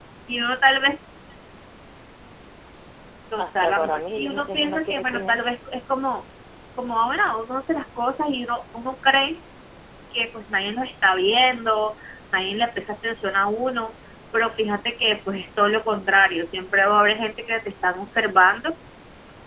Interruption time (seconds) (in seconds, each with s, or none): 3.4 s